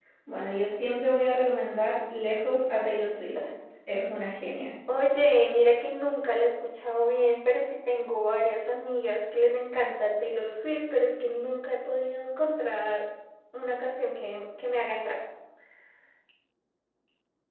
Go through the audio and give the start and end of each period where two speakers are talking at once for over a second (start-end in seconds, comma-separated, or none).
none